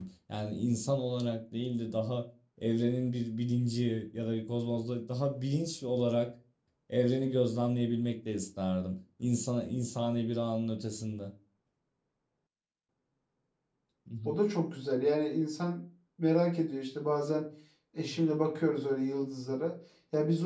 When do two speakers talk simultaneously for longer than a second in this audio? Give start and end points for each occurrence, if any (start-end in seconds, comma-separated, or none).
none